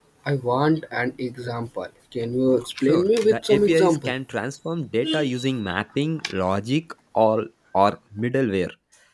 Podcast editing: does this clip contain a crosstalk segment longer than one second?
Yes, from 2.9 s

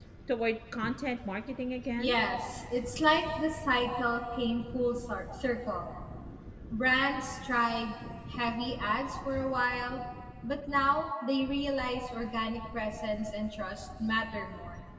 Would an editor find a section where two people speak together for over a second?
No

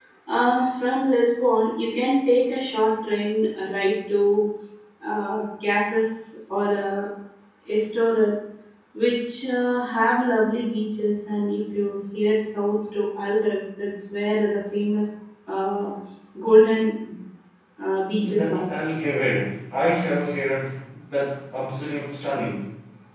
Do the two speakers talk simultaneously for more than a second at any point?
No

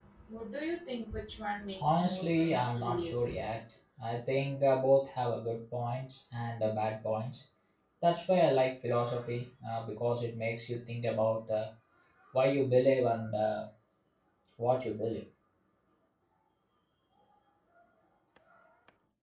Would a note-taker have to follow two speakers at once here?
Yes, from 1.8 s

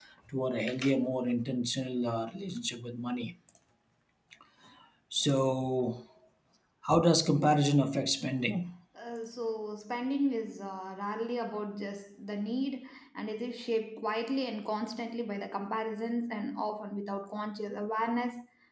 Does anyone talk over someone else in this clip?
No

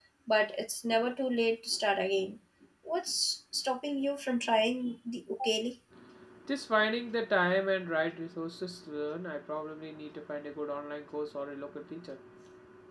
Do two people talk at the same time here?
No

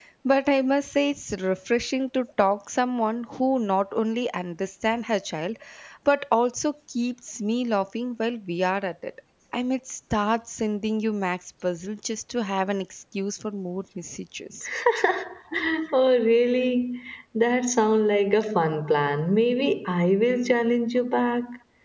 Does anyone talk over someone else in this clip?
No

